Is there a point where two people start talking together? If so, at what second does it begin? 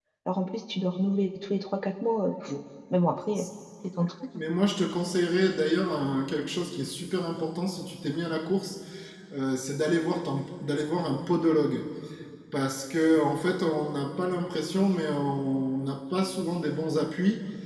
none

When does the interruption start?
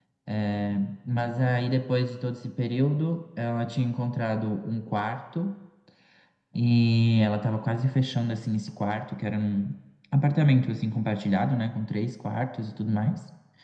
none

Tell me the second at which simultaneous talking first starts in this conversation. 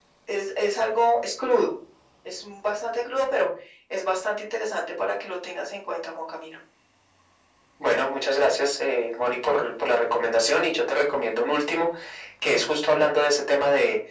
none

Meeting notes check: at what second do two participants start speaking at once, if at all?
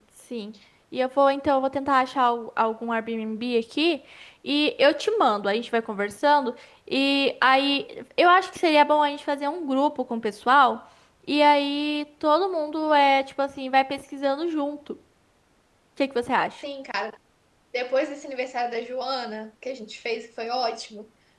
none

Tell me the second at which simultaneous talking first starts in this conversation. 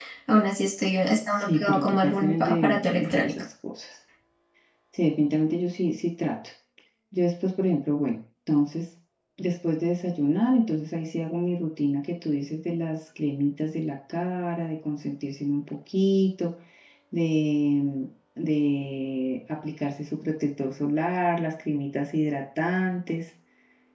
1.4 s

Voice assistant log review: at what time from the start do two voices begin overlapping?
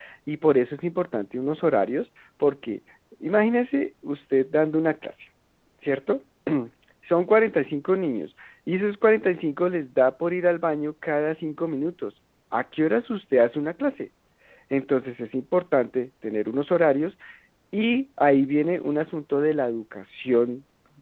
none

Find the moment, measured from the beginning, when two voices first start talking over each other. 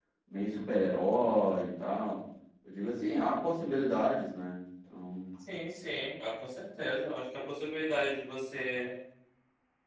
none

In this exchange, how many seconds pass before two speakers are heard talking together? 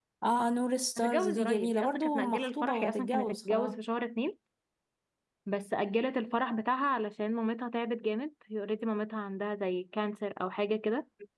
1.0 s

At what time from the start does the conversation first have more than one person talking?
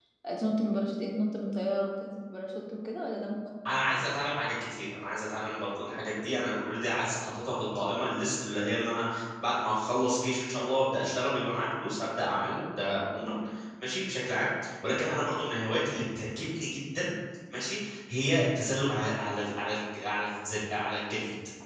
none

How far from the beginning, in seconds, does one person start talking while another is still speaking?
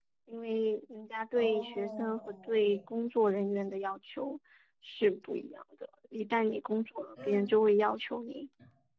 1.4 s

